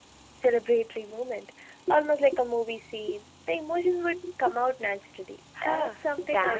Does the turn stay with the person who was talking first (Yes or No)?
No